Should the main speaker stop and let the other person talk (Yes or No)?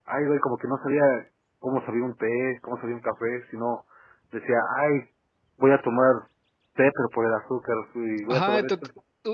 Yes